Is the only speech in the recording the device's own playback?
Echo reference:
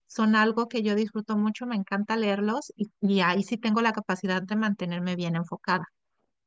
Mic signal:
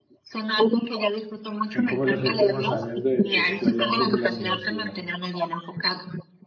No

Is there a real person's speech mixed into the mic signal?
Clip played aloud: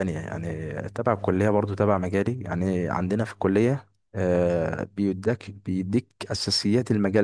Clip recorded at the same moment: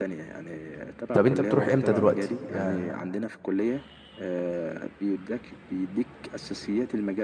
Yes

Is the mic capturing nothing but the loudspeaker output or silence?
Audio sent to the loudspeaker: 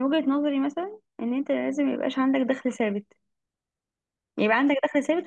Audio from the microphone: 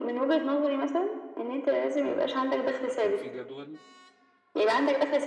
No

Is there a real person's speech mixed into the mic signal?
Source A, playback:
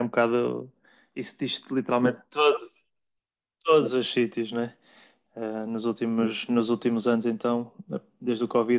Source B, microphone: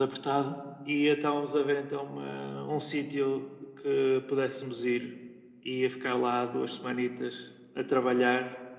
Yes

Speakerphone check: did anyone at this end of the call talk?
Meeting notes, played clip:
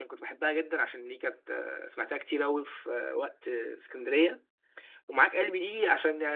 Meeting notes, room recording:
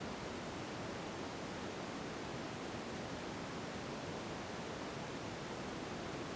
No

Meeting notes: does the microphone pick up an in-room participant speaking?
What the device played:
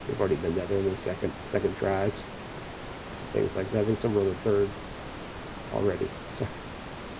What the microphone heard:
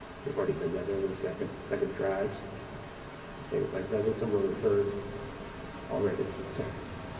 No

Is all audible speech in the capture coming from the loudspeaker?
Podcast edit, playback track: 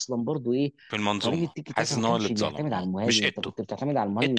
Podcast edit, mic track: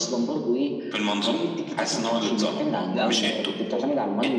No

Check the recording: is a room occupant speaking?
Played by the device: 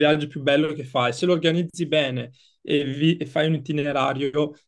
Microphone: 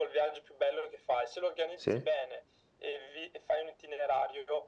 Yes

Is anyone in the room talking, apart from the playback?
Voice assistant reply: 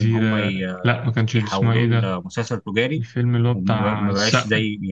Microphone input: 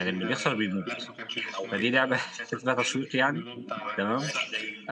Yes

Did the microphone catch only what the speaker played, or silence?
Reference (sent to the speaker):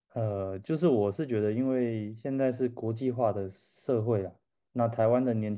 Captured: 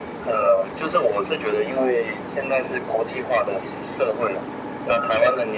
Yes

